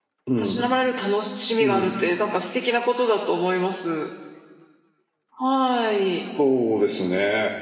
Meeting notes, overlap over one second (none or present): none